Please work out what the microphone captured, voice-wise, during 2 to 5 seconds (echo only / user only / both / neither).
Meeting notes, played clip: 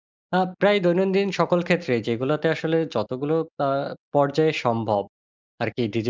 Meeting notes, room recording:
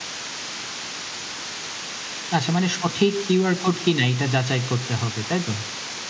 user only